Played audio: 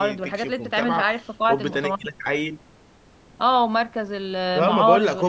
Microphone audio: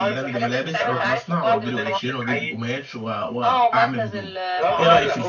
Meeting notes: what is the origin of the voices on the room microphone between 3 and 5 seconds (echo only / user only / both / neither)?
both